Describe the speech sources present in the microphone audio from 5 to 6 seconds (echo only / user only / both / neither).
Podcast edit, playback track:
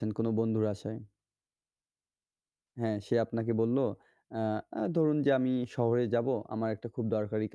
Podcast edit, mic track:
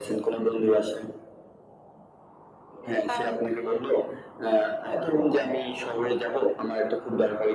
echo only